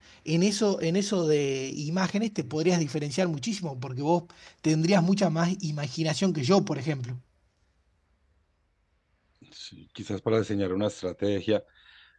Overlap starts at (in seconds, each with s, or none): none